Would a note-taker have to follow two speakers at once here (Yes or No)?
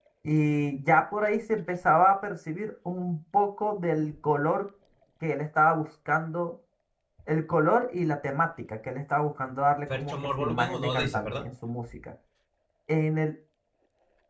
Yes